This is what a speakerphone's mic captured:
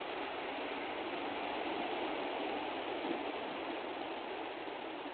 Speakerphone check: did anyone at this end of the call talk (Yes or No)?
No